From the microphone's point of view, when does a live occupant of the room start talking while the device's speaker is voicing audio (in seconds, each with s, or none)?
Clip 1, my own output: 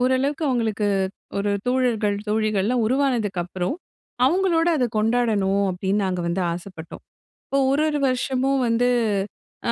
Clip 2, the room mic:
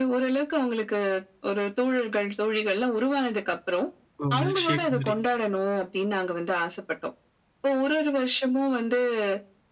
4.2 s